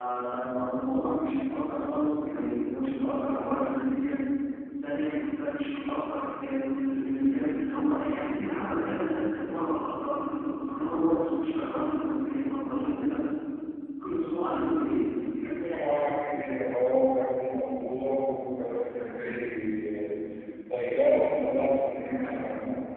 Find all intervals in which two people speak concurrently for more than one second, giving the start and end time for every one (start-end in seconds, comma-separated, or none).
none